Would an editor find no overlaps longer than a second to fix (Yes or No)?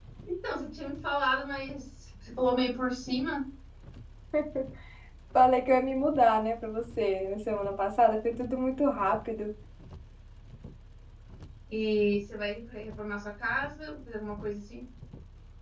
Yes